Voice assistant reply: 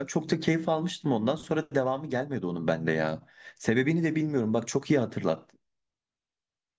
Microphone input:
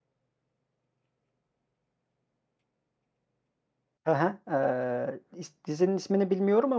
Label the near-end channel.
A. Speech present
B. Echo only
A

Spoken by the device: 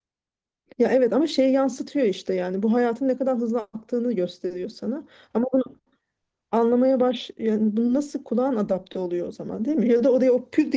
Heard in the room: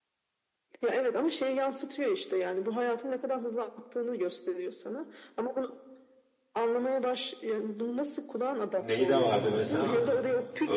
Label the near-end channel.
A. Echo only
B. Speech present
B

